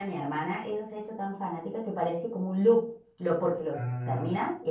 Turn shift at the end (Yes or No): No